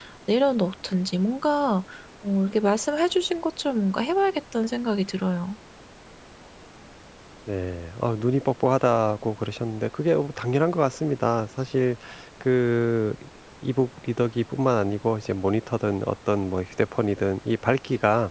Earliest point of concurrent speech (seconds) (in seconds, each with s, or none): none